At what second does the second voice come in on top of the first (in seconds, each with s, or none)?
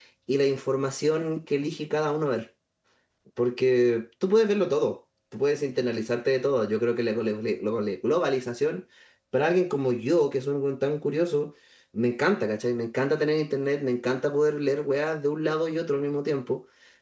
none